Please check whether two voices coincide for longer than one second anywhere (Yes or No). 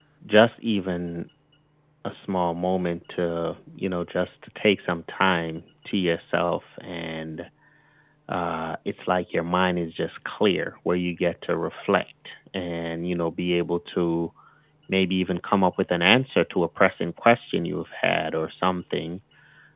No